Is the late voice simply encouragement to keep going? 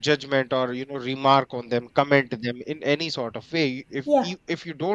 Yes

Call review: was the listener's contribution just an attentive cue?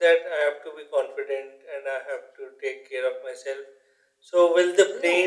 Yes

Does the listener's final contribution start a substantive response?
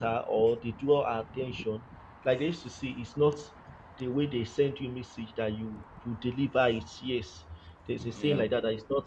No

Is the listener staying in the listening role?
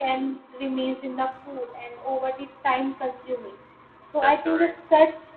Yes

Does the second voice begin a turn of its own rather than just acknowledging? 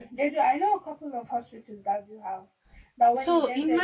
No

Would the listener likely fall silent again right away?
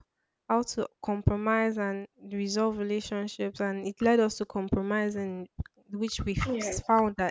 Yes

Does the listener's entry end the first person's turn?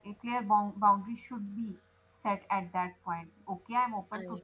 No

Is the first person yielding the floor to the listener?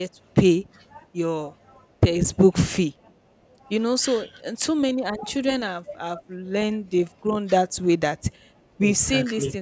No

